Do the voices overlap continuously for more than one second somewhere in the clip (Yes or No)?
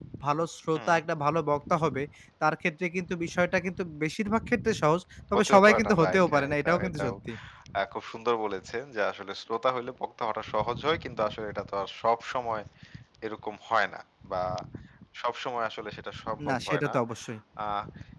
Yes